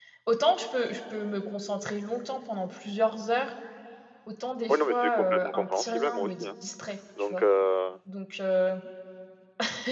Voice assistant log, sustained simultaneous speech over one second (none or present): present